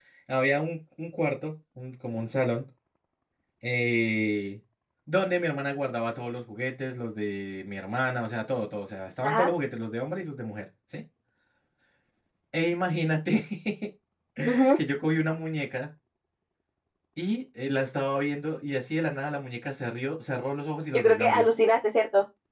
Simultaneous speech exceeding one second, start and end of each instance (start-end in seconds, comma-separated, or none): none